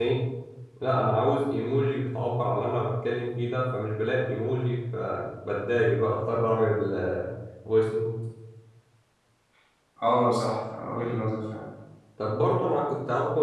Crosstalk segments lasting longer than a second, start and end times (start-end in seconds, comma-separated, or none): none